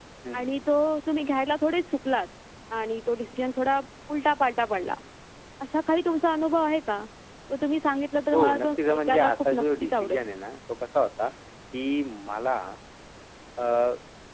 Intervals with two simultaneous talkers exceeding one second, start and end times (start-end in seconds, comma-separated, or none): 8.3-10.3